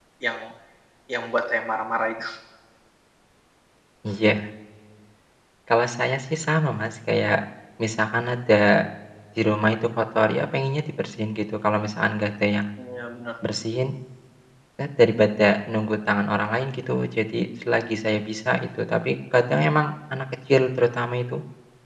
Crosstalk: none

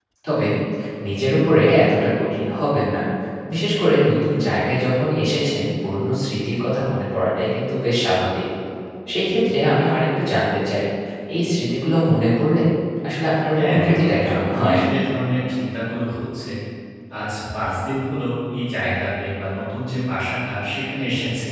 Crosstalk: present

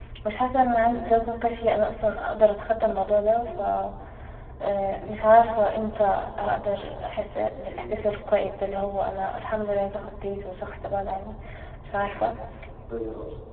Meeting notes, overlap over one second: none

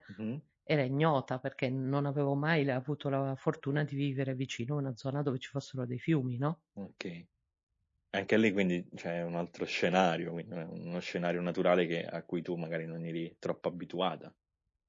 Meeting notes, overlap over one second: none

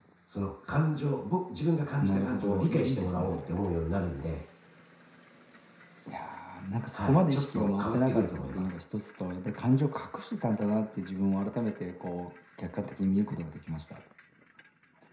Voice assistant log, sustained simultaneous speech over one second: present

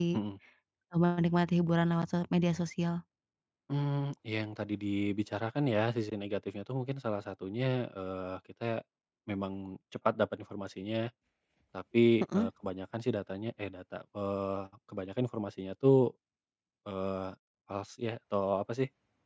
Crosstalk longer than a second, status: none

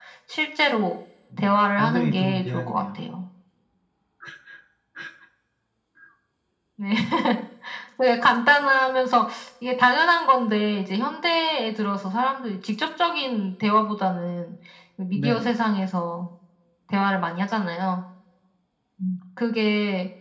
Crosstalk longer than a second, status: present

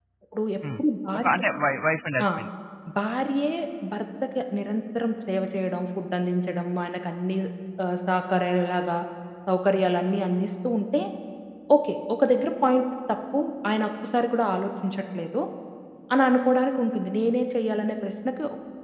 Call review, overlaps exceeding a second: none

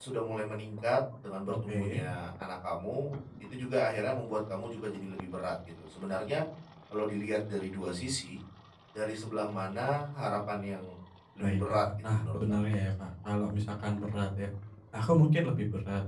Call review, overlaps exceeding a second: present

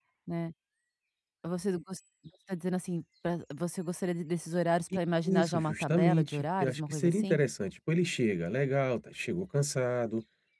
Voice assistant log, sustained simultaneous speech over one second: present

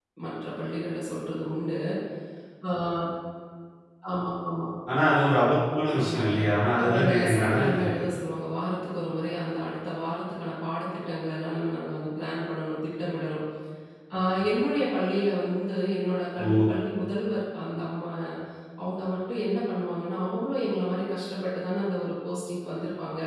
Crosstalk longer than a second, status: present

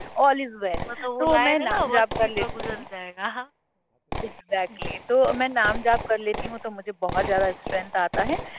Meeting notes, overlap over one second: present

